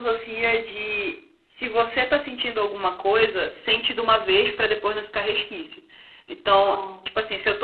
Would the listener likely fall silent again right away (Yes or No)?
Yes